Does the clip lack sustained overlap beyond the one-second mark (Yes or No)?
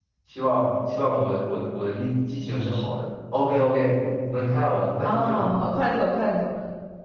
Yes